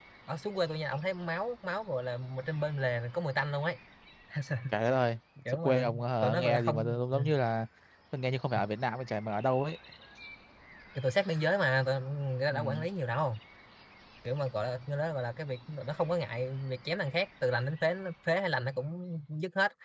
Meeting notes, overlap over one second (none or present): present